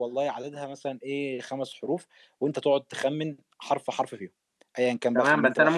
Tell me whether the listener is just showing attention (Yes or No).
No